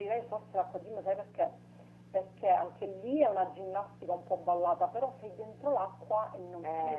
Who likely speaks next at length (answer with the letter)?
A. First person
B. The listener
B